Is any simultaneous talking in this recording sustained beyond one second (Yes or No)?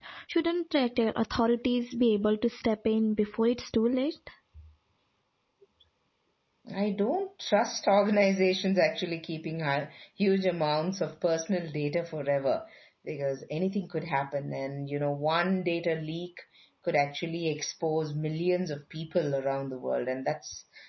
No